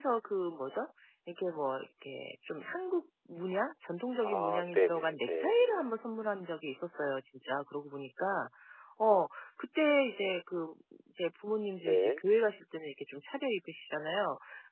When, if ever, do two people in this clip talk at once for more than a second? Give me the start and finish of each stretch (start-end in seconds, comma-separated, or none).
4.2-5.9